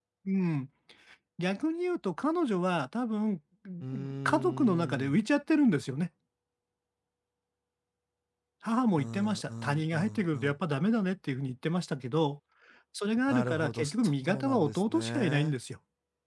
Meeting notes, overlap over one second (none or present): present